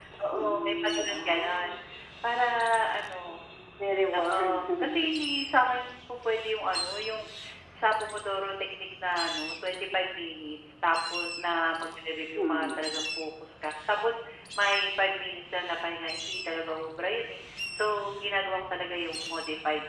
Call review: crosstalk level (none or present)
present